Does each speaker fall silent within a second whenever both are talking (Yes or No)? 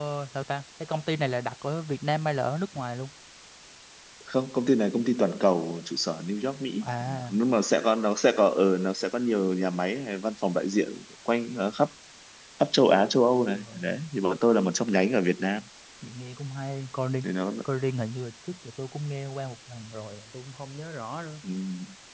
Yes